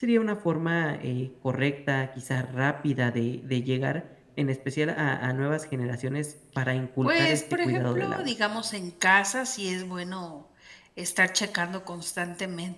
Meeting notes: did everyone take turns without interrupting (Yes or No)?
No